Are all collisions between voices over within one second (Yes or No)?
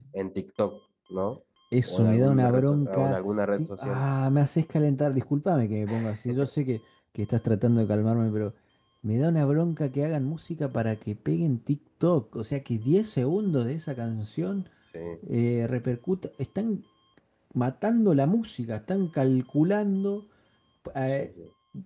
No